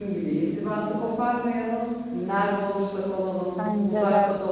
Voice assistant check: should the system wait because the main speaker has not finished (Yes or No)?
Yes